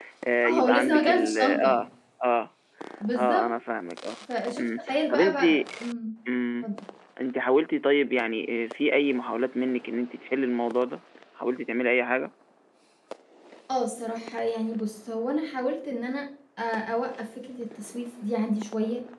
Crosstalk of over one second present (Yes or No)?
Yes